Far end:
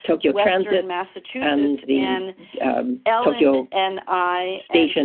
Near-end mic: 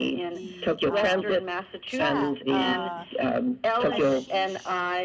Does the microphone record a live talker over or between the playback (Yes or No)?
Yes